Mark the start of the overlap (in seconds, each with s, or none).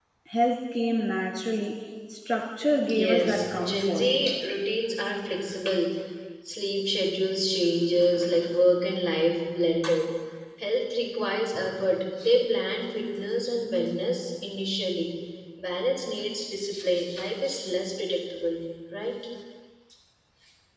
2.9 s